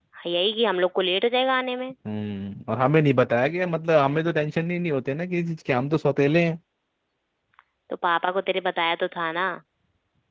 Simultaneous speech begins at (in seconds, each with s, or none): none